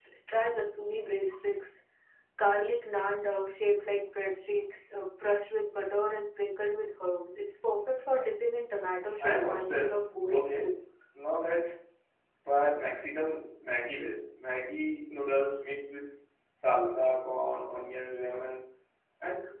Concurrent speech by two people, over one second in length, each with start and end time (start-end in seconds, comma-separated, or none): 9.2-10.8